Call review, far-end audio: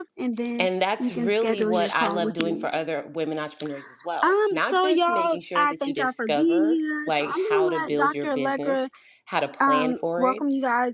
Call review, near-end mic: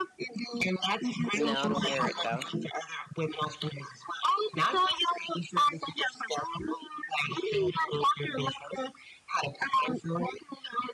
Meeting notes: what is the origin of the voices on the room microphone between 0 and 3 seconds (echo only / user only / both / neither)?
both